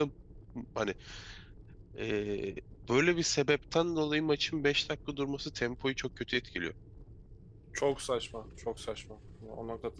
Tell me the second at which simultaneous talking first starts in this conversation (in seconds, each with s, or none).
none